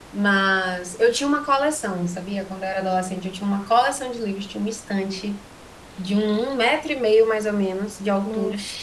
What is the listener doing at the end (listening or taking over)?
listening